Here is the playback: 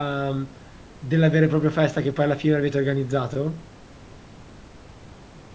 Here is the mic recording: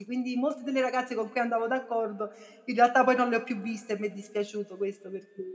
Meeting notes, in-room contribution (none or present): present